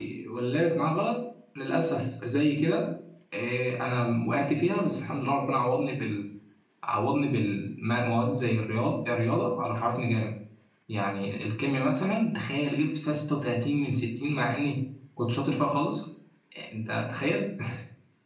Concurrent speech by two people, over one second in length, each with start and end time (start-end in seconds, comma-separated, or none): none